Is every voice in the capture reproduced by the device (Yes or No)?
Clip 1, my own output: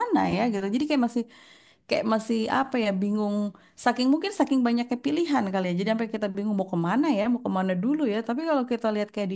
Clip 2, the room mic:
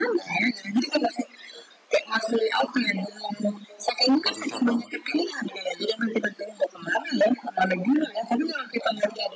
No